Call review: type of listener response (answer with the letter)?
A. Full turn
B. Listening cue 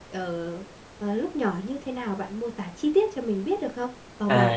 A